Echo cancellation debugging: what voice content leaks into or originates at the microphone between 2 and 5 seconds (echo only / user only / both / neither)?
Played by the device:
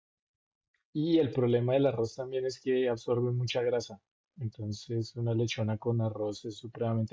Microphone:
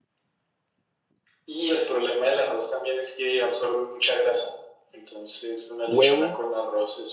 echo only